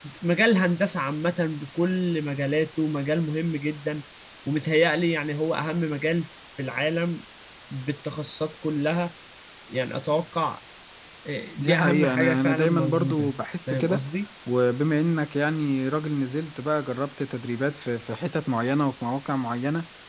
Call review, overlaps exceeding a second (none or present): present